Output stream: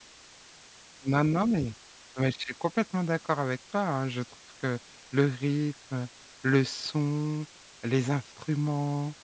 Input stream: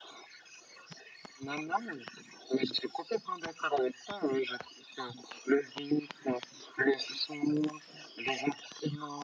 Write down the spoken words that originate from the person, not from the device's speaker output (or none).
none